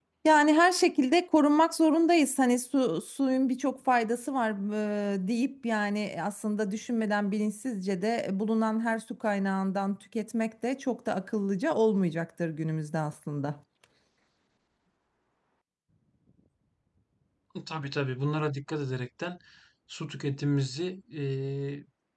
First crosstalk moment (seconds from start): none

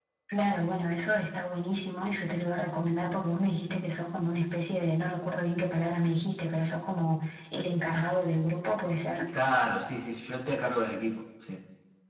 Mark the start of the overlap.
none

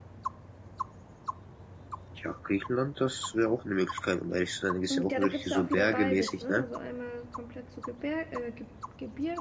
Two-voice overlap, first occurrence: 4.9 s

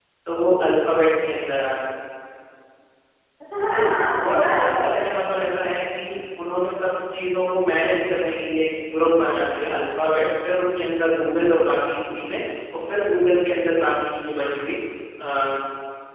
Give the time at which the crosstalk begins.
3.6 s

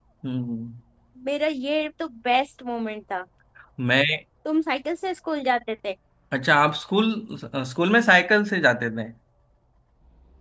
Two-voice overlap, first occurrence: none

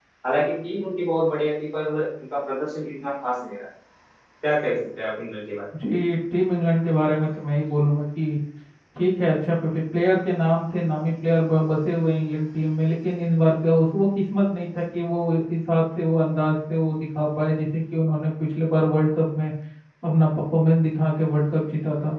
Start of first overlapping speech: none

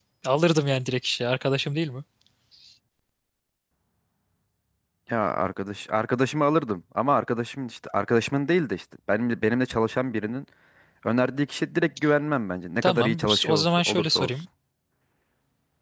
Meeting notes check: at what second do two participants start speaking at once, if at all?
12.8 s

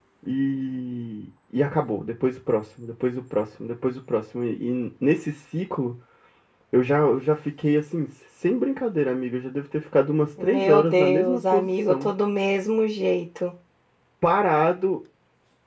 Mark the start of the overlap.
10.4 s

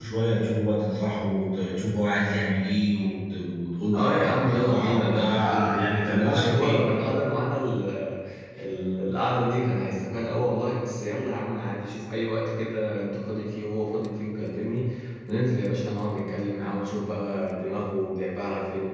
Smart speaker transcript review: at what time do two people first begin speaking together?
3.9 s

